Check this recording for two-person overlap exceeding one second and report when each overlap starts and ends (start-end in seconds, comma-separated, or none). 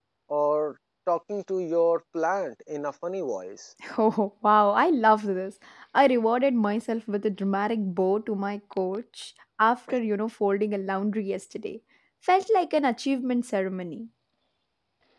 none